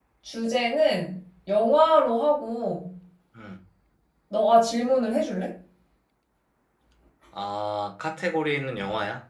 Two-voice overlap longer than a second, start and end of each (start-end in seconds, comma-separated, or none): none